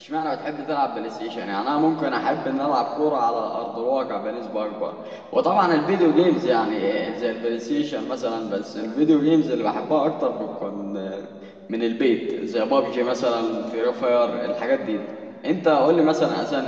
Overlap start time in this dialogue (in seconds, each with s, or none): none